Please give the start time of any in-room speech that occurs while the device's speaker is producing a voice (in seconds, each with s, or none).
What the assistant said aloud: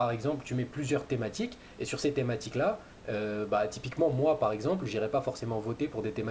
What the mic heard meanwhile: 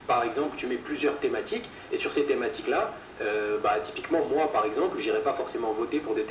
none